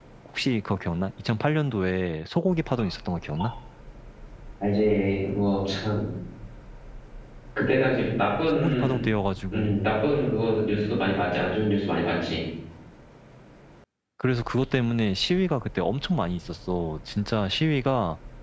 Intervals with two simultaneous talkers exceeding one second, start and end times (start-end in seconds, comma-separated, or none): none